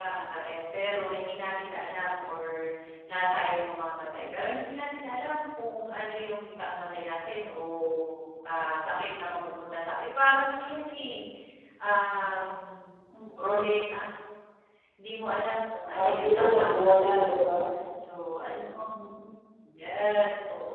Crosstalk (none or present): present